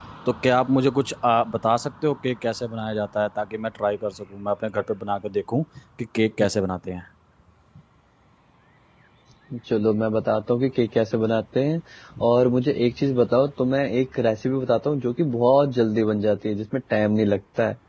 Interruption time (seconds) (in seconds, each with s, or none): none